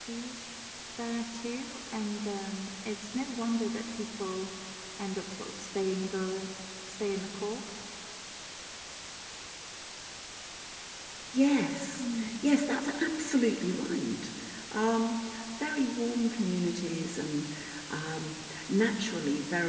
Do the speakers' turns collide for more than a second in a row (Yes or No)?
No